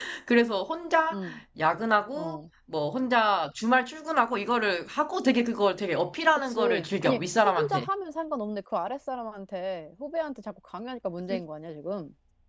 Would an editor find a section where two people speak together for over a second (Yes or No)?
Yes